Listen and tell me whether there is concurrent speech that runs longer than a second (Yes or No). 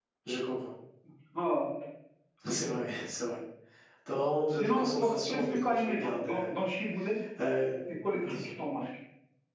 Yes